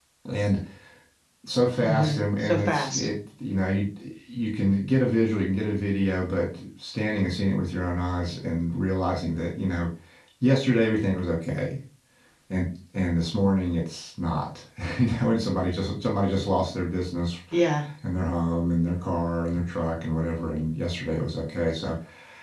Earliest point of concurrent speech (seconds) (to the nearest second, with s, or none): 2 s